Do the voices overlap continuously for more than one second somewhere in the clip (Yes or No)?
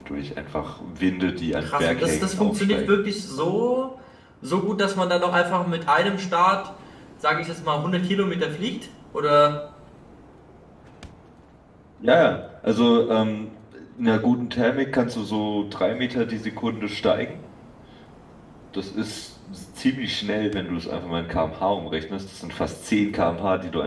Yes